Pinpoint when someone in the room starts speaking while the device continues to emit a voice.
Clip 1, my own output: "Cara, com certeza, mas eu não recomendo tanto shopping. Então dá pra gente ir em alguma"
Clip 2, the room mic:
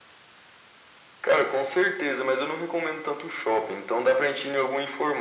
none

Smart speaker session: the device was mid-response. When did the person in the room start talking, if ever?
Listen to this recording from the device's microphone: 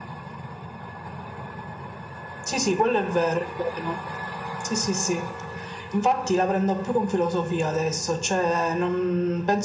none

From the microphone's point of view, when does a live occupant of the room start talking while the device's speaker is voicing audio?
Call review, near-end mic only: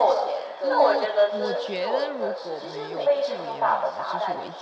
0.6 s

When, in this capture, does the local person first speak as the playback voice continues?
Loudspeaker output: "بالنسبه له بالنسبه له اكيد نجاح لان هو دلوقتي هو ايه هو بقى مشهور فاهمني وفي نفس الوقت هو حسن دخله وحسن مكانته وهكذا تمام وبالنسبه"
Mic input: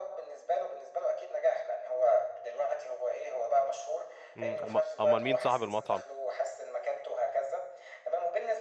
4.3 s

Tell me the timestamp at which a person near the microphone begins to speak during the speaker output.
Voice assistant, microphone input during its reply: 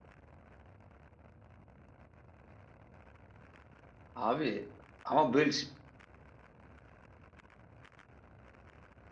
4.1 s

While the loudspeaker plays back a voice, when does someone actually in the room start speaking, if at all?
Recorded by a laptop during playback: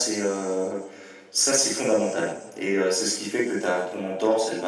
none

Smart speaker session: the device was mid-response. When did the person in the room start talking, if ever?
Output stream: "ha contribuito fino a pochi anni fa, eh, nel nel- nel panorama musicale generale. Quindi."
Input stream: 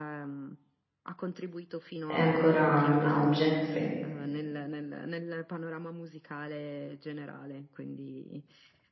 2.0 s

